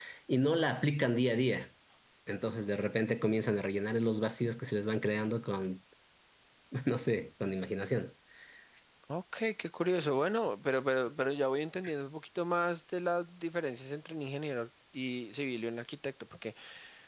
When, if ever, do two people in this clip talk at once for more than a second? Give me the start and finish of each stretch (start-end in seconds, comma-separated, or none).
none